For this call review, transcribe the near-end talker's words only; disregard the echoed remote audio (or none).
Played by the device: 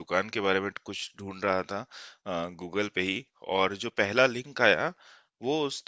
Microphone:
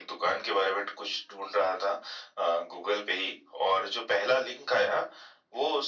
none